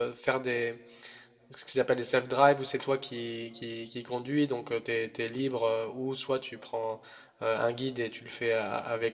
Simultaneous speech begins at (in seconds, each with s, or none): none